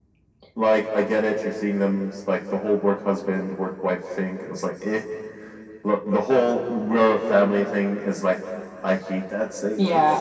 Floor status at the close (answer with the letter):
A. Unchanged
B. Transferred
B